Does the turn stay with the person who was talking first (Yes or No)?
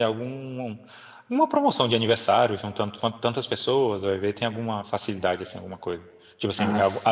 Yes